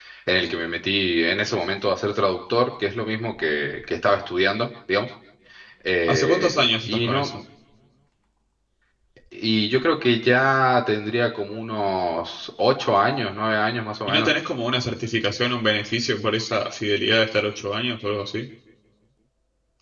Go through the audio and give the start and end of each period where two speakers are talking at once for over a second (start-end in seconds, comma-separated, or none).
6.0-7.3